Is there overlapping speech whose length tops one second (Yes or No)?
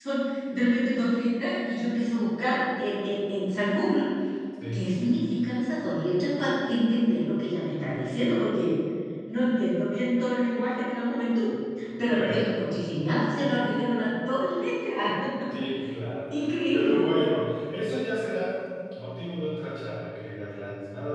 No